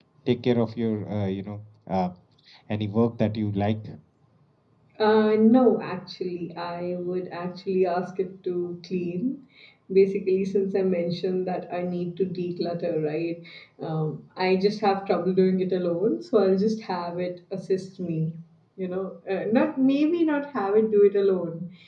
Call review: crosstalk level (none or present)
none